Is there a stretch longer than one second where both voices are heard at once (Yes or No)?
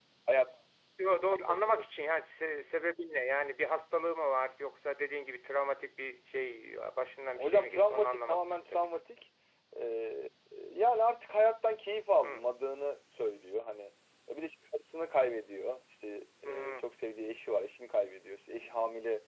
Yes